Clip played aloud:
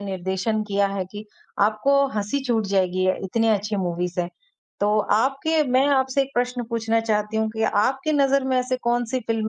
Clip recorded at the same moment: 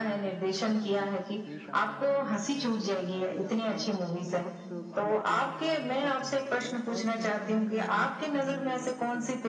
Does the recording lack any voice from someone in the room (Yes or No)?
No